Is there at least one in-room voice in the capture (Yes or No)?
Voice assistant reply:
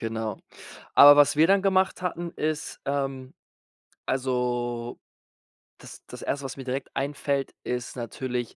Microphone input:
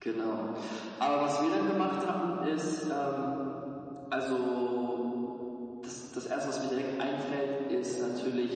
No